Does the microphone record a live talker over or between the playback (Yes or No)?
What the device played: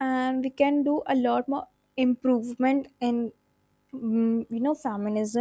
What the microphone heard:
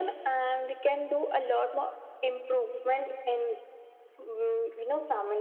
No